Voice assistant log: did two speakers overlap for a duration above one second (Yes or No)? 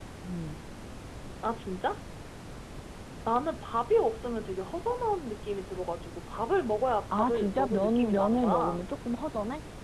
Yes